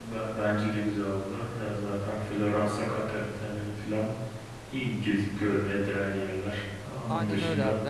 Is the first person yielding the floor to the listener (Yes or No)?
Yes